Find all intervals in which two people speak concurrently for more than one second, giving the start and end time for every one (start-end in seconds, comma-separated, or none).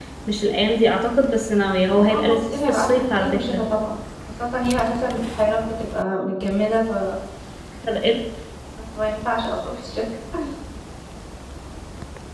2.1-3.6